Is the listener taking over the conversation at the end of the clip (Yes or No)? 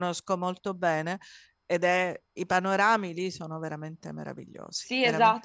Yes